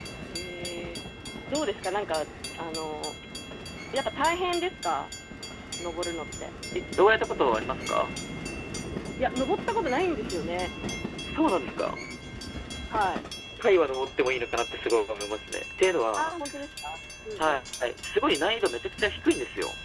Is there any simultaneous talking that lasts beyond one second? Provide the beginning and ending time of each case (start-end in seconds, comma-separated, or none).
none